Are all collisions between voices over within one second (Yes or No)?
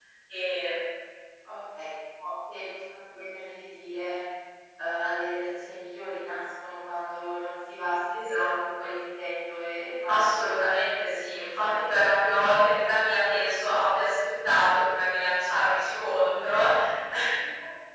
No